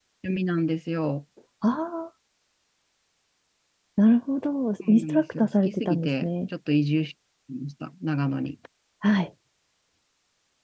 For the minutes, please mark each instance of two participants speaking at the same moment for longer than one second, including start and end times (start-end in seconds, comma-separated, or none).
4.9-6.3